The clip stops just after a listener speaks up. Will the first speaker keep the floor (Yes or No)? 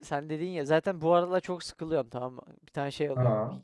Yes